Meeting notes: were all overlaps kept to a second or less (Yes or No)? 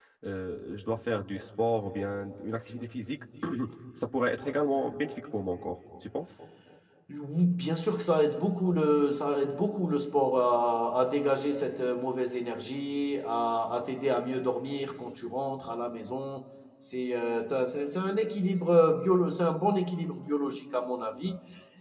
Yes